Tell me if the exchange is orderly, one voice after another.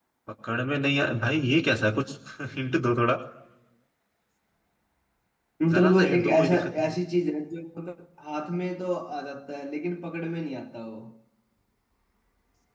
No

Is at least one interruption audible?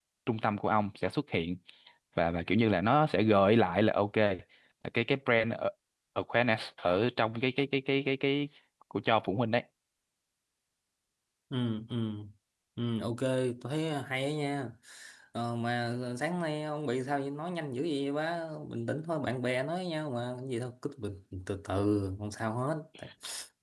No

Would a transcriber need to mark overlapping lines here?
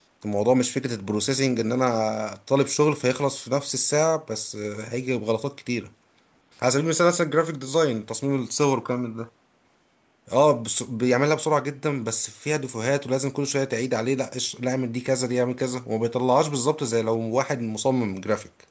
No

